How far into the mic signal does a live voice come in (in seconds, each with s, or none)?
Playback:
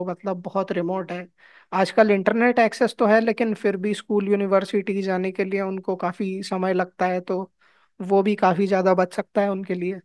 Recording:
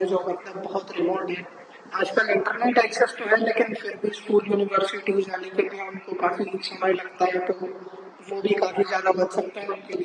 none